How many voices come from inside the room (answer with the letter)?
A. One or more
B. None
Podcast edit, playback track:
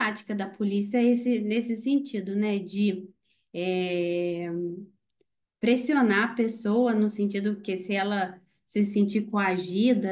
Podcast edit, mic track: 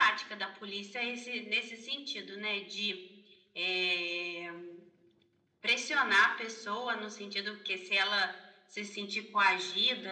B